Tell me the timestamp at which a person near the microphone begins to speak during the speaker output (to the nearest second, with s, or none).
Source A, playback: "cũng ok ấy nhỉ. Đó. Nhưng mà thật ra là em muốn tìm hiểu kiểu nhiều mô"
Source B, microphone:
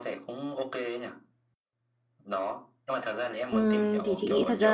3 s